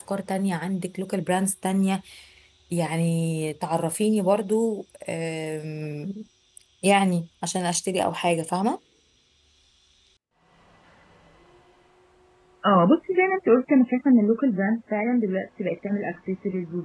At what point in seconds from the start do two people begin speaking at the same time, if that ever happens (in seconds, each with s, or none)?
none